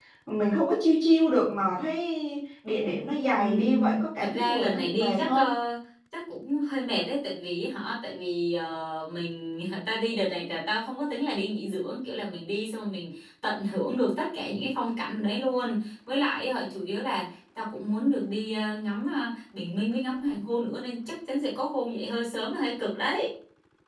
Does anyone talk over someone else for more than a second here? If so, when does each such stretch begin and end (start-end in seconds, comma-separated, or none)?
3.4-5.5